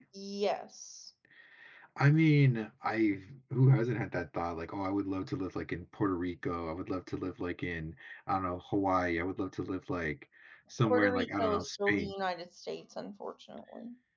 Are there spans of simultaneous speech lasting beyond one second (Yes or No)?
Yes